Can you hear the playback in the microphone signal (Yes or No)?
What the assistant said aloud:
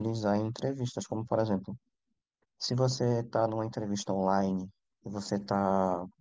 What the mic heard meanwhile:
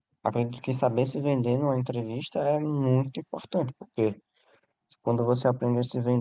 No